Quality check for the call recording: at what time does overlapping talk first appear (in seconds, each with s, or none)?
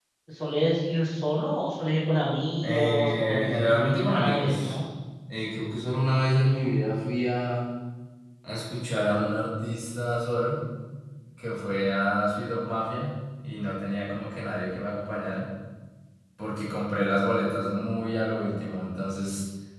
2.6 s